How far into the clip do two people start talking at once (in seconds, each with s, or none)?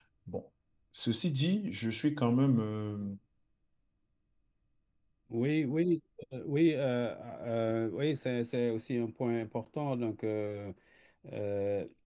none